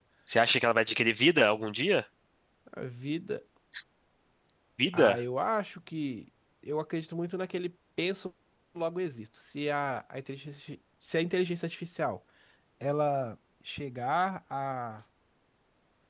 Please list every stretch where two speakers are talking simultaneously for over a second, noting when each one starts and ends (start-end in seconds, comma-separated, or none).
none